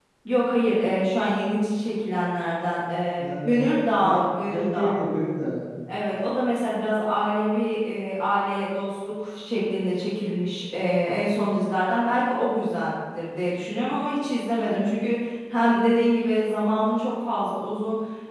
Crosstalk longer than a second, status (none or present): present